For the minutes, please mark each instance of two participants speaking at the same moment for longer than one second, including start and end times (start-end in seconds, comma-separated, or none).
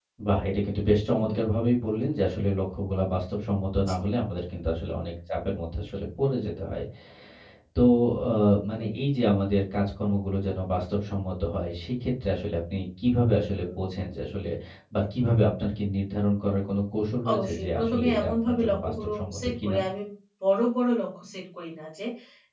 17.3-19.8